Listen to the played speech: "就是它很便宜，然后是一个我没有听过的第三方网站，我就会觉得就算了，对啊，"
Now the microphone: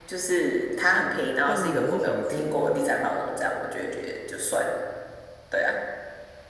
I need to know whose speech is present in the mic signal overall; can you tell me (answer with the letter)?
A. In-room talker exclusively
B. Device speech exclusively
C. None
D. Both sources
D